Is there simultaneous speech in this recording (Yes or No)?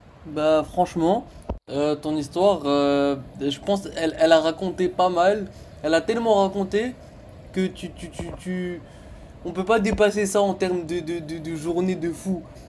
No